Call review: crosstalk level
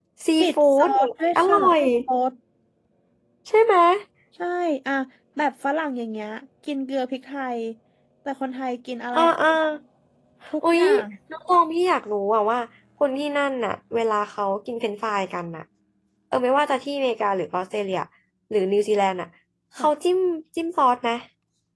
present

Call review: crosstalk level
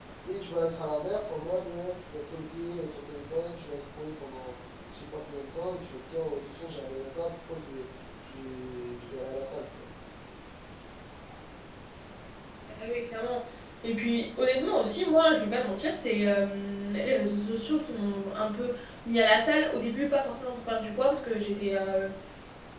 none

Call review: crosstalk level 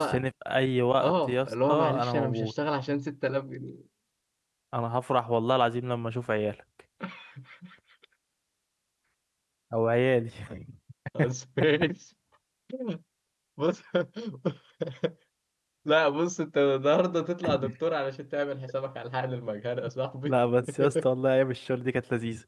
present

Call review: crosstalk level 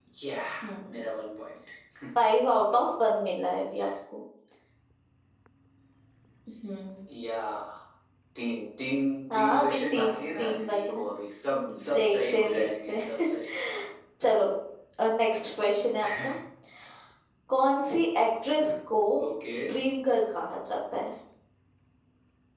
present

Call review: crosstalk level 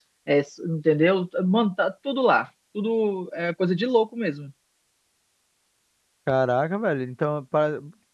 none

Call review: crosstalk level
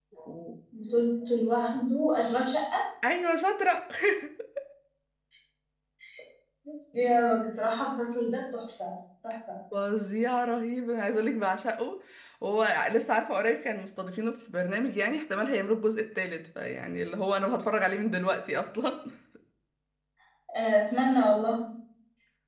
none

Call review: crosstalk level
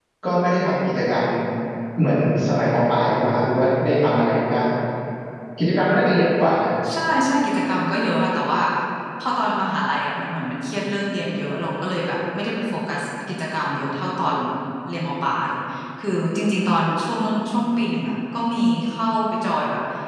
none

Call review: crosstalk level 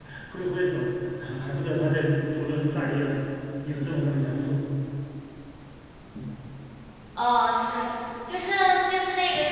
none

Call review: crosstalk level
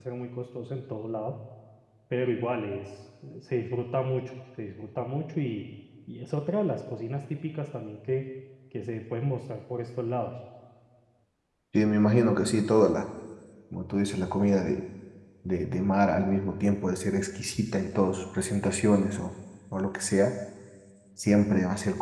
none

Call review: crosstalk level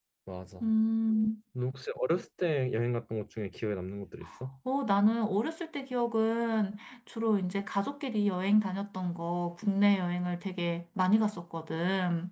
none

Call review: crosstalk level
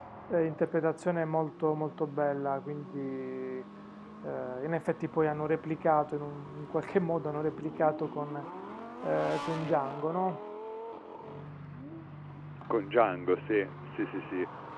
none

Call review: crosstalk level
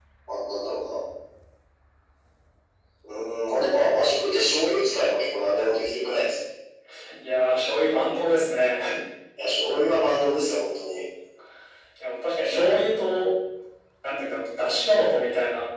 none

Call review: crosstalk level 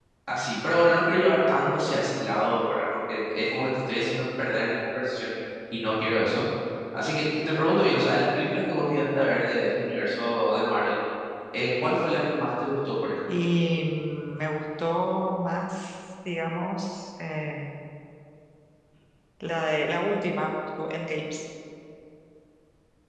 none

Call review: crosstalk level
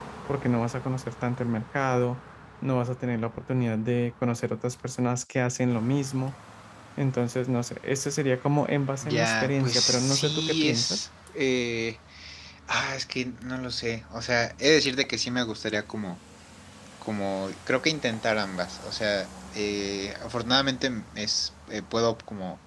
present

